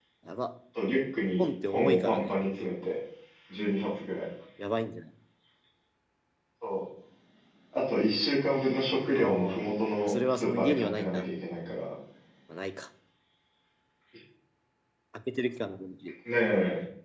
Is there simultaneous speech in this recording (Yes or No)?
Yes